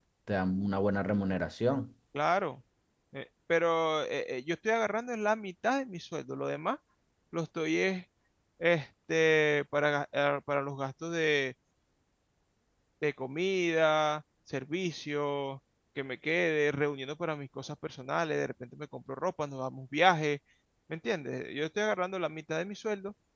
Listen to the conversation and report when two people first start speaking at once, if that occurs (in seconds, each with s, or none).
none